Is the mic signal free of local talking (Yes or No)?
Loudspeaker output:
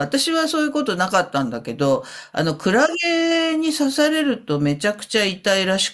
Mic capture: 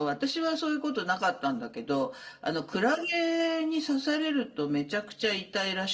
Yes